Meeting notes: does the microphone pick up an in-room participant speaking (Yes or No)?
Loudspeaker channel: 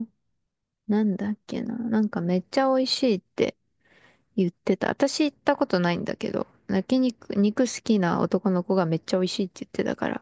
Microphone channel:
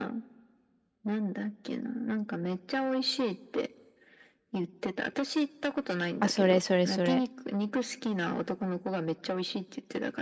Yes